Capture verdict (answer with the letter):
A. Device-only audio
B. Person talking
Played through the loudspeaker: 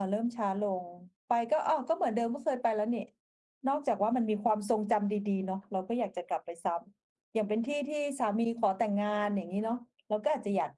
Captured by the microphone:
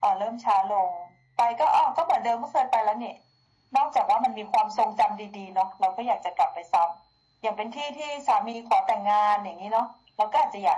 A